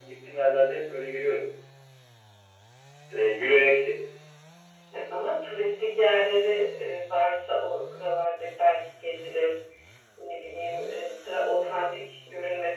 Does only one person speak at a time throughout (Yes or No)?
Yes